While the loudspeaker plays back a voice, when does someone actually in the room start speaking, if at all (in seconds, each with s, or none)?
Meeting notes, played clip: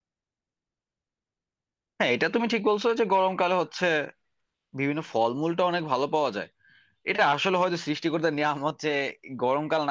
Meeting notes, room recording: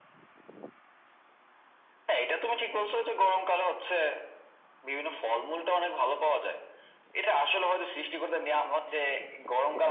none